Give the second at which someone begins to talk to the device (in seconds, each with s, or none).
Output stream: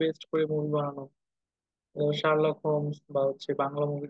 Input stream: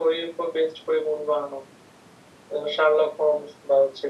none